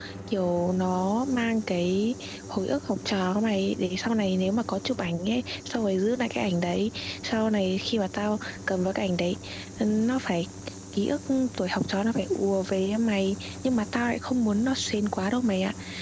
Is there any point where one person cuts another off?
No

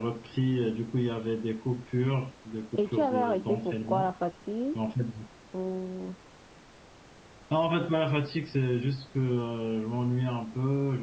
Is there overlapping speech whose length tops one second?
Yes, from 2.7 s

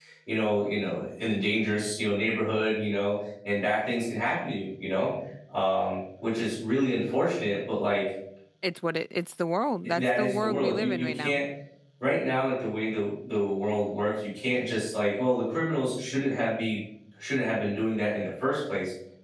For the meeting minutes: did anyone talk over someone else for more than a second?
Yes, from 9.8 s

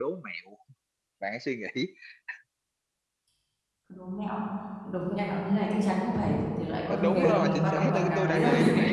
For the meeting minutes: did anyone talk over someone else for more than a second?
Yes, from 6.9 s

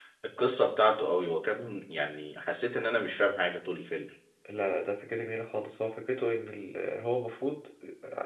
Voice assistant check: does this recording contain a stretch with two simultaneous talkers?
No

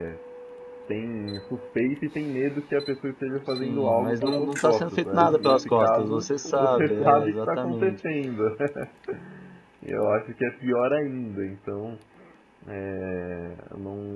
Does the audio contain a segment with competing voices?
Yes, from 3.6 s

